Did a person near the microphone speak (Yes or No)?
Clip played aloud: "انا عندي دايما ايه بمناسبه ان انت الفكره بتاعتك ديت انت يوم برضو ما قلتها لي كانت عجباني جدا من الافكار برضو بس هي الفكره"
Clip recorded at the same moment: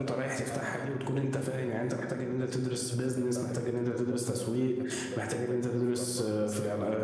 Yes